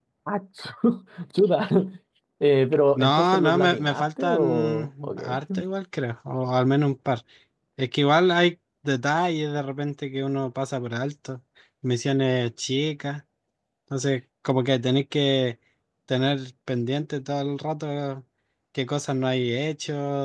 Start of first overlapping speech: 2.9 s

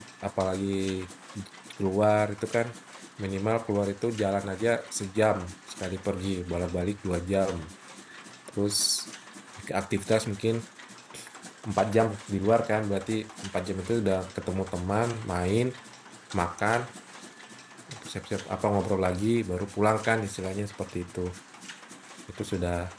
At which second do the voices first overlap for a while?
none

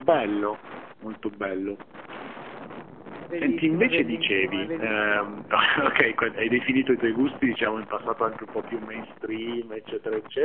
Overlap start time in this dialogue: 3.3 s

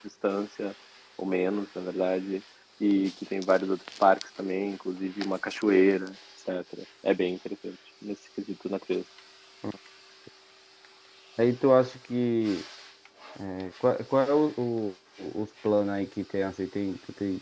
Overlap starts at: none

